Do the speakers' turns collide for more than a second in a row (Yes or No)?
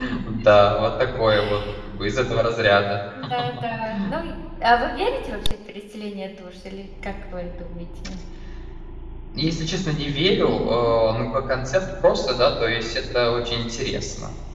No